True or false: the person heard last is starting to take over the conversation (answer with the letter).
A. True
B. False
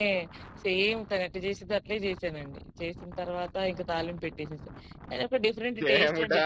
A